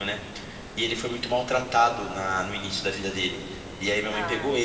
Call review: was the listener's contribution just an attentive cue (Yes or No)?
Yes